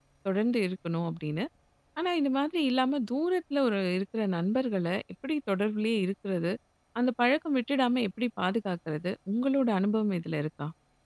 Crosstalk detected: No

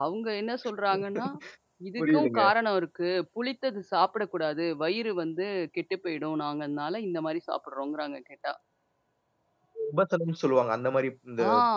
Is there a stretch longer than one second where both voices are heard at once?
No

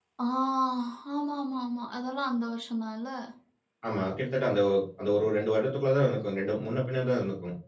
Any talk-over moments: No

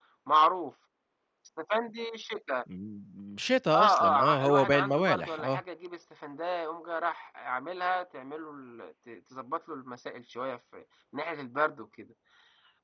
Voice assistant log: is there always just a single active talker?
No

